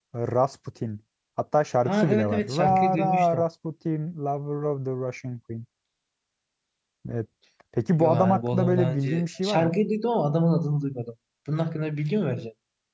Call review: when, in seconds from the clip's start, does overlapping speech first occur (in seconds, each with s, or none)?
1.8 s